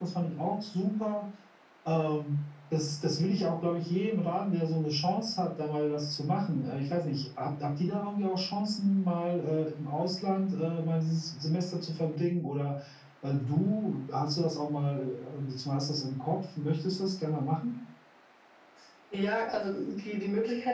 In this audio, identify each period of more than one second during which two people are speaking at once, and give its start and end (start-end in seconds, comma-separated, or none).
none